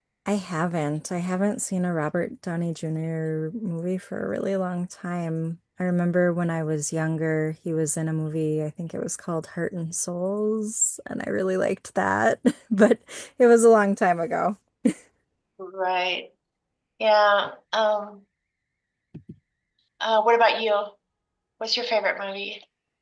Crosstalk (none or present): none